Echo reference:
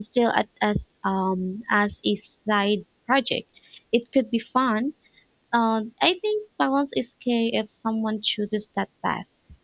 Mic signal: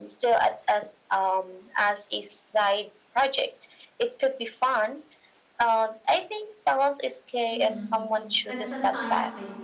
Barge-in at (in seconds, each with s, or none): 7.5 s